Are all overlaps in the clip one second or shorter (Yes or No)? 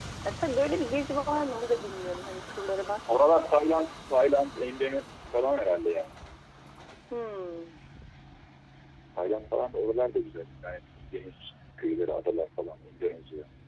Yes